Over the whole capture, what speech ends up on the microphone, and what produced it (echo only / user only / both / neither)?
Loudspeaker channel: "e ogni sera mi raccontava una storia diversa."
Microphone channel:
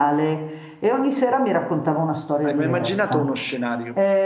both